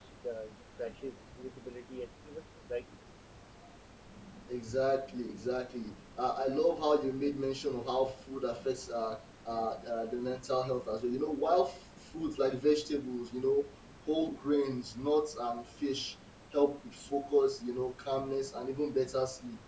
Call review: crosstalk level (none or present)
none